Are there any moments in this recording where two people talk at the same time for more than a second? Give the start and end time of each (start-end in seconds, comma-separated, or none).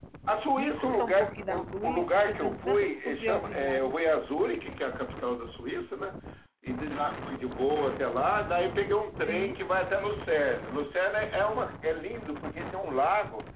0.6-3.9